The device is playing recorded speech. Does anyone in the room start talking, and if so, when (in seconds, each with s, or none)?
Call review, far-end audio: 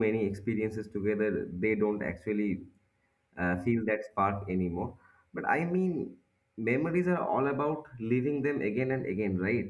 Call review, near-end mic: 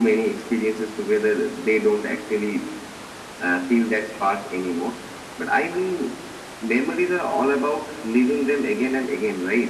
none